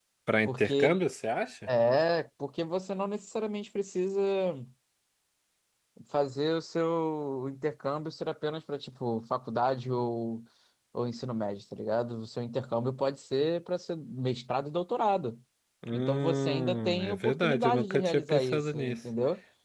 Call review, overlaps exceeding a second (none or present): present